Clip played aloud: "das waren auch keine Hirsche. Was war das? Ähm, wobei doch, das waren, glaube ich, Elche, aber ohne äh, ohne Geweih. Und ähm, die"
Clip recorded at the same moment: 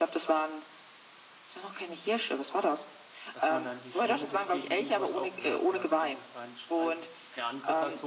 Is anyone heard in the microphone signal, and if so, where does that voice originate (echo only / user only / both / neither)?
both